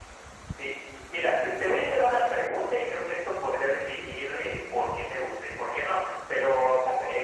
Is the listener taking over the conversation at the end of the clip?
No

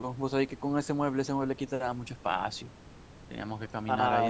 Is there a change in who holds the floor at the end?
No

